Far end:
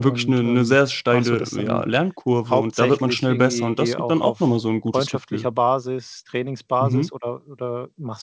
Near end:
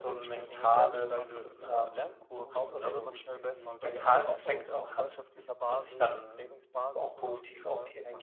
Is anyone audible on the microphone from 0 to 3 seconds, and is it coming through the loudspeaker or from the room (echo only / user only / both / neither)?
both